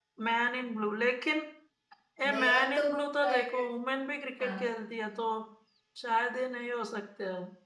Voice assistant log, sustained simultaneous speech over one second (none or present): present